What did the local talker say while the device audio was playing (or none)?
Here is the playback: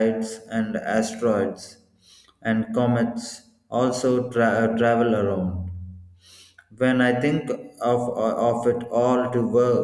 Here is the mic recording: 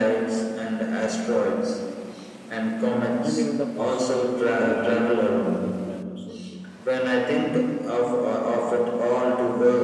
and even the possibility of the life on the other planets also.